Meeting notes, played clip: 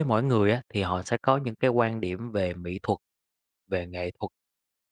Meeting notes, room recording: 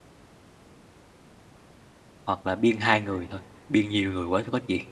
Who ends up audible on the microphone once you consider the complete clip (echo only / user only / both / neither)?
user only